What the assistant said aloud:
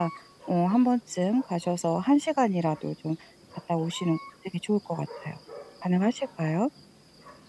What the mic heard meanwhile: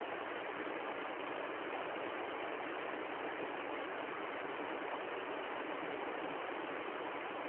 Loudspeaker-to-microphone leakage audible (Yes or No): No